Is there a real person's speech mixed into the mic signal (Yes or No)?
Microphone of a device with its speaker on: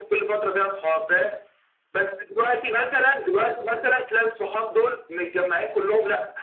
No